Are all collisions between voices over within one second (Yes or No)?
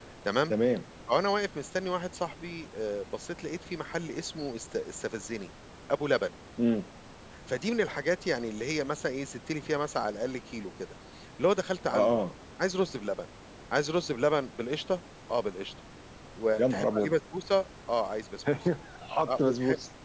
Yes